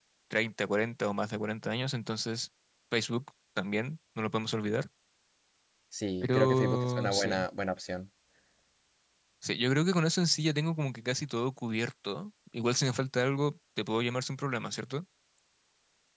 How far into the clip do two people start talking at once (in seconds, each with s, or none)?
6.2 s